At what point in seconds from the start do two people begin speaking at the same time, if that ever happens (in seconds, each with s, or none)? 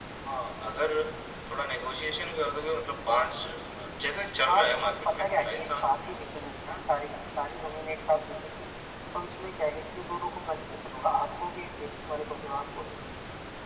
4.5 s